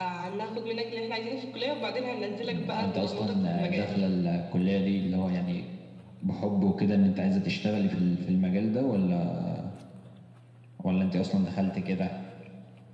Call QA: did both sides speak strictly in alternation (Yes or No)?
No